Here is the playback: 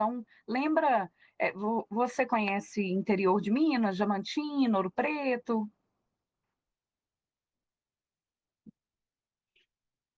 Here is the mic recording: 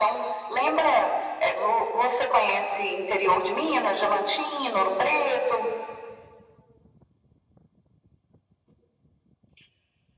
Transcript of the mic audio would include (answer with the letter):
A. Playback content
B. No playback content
A